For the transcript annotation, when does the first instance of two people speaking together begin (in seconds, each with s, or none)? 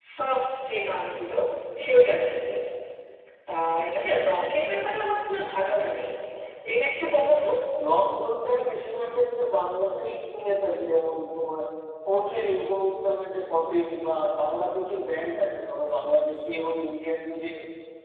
none